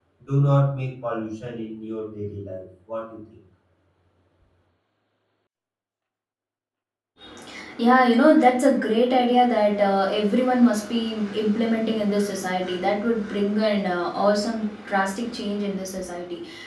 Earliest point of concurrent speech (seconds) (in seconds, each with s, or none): none